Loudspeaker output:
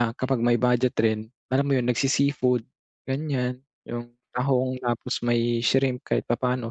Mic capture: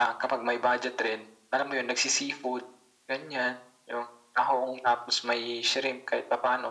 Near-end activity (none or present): none